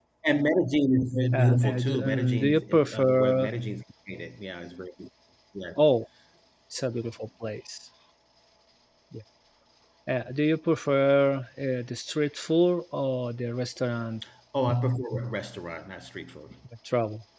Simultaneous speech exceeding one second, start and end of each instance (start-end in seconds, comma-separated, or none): 1.3-3.5